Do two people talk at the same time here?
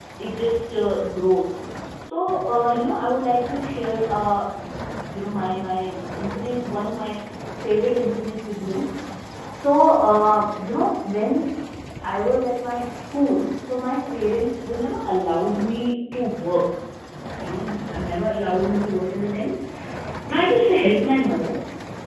No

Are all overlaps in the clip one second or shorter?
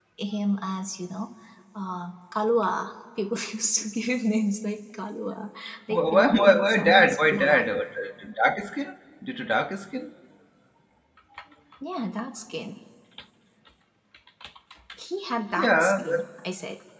No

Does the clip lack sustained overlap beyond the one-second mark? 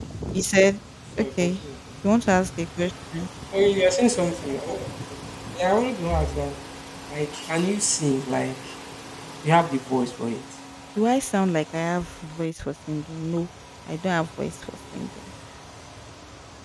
Yes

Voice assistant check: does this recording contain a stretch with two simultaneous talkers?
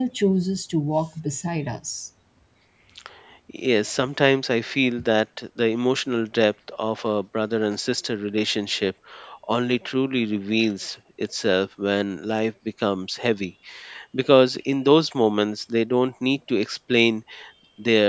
No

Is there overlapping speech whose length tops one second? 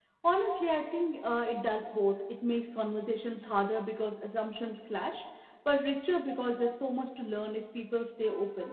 No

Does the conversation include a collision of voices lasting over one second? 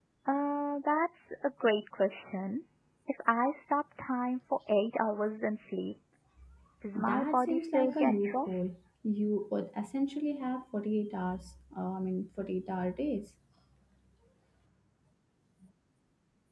Yes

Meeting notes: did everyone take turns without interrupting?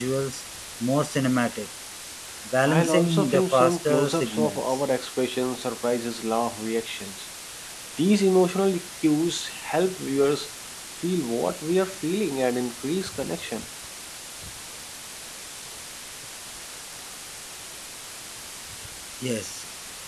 No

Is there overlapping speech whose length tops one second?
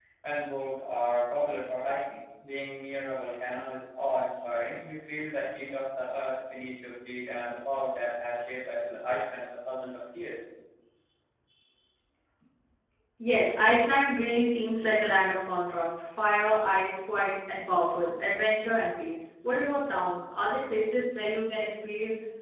No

